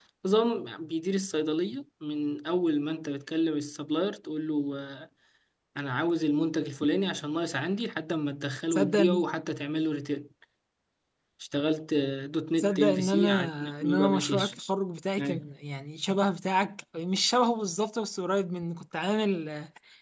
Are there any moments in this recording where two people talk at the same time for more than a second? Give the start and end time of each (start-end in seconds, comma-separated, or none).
12.6-14.5